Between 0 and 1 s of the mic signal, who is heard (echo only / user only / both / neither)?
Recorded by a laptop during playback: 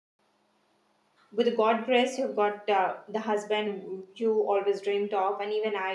neither